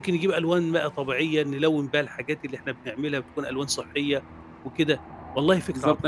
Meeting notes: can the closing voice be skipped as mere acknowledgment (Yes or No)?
No